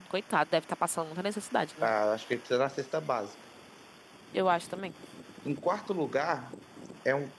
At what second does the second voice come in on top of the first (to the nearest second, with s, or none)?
none